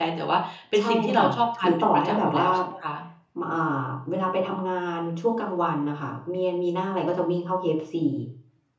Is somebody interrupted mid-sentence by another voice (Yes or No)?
Yes